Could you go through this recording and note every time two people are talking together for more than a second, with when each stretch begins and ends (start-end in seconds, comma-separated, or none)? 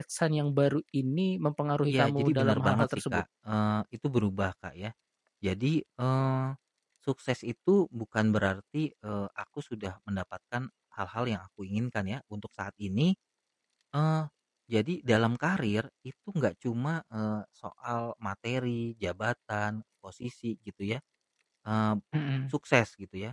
1.9-3.2